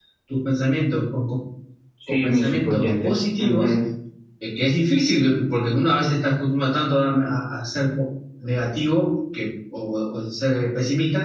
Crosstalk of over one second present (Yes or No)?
Yes